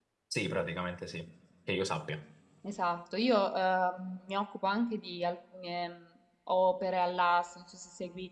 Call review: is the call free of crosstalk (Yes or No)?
Yes